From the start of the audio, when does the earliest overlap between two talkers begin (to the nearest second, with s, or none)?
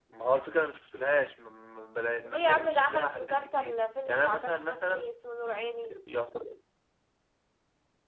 2 s